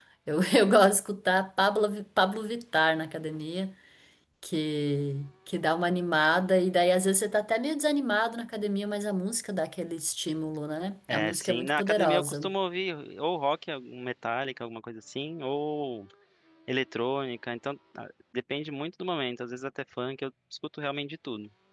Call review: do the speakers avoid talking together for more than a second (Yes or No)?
No